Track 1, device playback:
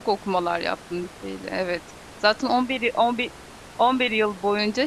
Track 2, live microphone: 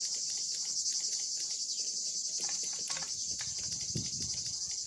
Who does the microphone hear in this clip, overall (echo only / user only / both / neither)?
neither